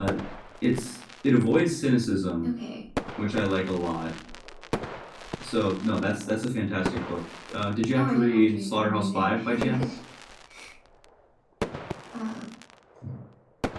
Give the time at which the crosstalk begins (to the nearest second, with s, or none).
8 s